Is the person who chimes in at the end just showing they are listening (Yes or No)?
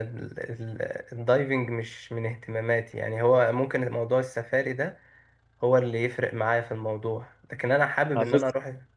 Yes